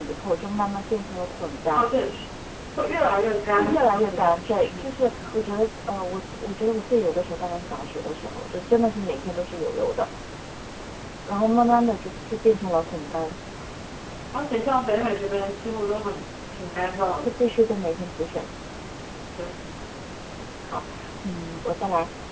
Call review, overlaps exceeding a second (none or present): present